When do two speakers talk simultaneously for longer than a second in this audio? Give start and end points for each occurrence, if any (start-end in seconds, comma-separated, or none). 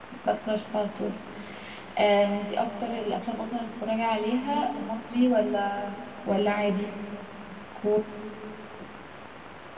none